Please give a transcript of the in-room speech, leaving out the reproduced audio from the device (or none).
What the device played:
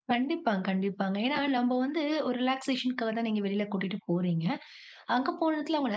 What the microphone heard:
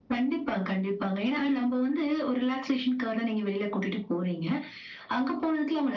none